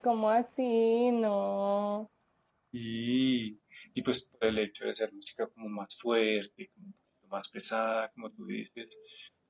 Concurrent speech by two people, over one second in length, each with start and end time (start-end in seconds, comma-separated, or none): none